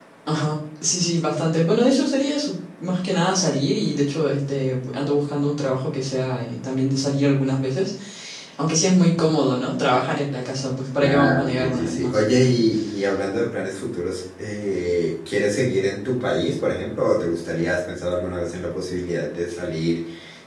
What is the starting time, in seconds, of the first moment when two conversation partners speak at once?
11.0 s

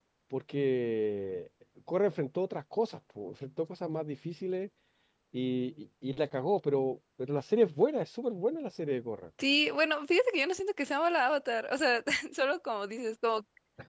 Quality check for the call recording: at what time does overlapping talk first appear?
none

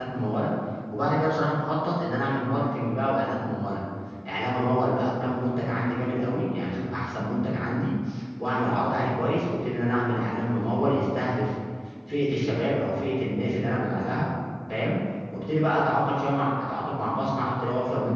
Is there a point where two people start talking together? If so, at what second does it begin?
none

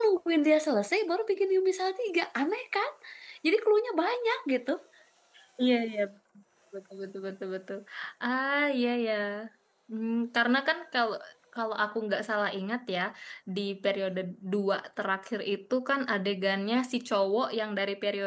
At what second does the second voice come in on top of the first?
none

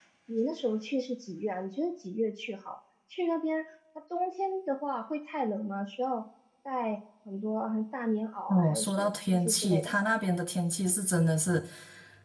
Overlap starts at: 8.5 s

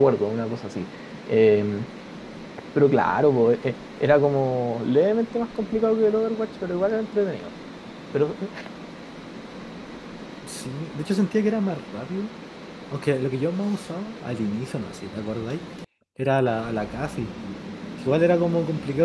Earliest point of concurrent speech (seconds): none

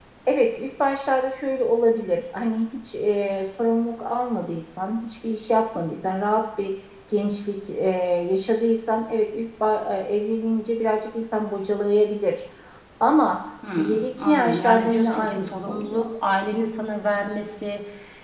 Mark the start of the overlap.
13.8 s

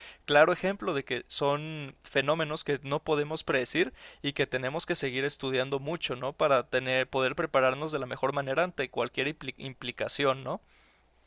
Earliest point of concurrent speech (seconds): none

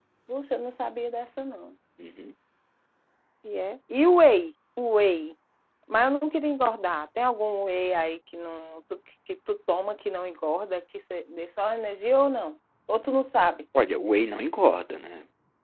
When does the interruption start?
none

